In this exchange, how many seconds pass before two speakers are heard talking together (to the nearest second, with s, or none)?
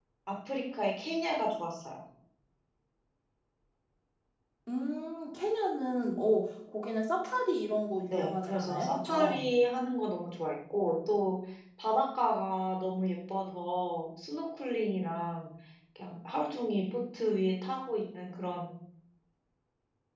8 s